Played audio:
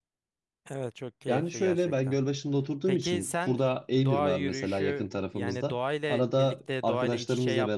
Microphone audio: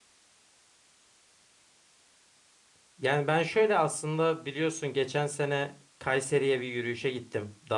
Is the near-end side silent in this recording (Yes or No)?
No